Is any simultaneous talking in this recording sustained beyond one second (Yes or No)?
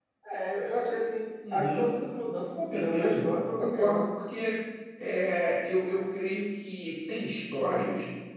Yes